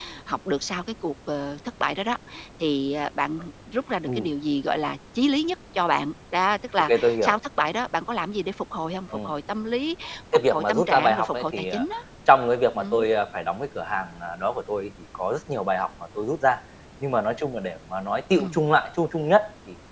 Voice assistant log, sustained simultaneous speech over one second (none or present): present